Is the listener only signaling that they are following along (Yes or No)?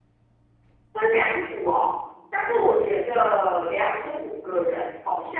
Yes